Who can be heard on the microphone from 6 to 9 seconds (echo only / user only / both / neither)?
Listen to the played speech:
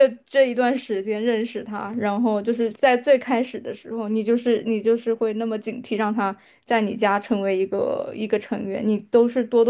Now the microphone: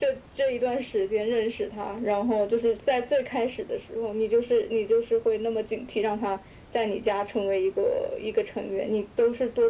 echo only